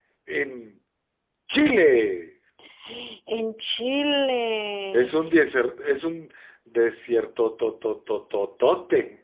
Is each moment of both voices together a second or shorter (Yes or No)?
Yes